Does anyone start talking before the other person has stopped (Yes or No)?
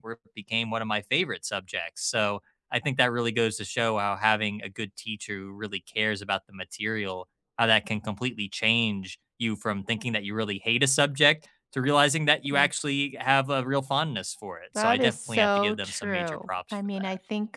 Yes